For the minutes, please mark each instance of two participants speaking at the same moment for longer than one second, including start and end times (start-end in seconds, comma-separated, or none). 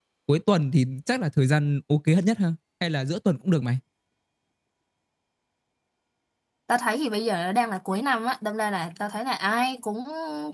none